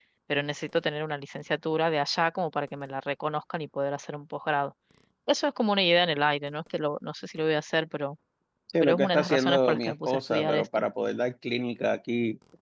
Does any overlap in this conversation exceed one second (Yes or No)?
Yes